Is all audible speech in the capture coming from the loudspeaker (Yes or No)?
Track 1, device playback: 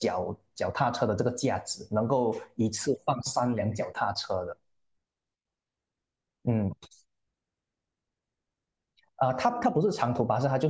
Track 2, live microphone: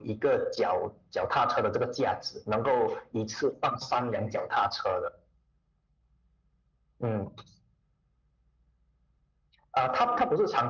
Yes